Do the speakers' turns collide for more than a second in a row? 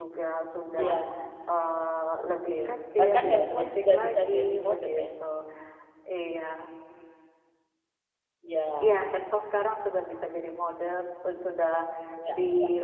Yes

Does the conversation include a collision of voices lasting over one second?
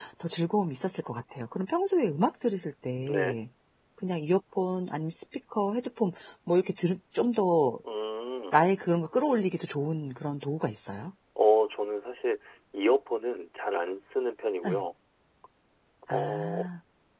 No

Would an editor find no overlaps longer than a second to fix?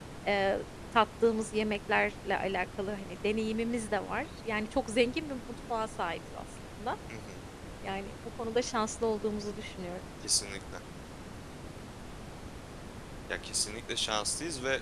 Yes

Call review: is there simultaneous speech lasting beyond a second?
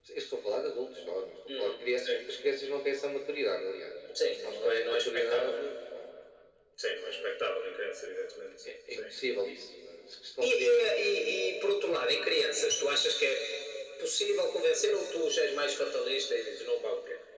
Yes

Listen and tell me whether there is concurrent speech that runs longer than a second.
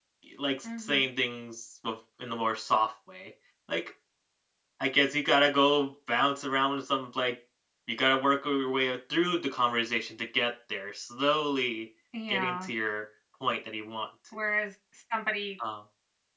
No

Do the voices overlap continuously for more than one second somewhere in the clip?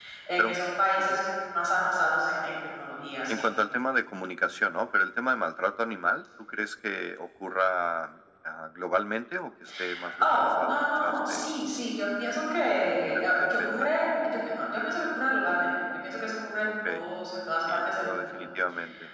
Yes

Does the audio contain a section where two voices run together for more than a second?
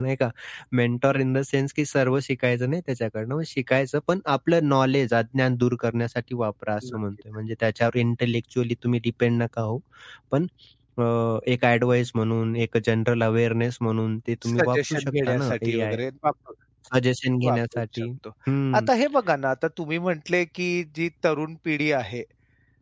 Yes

